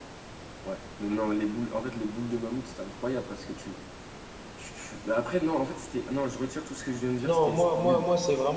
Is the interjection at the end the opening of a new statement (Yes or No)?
Yes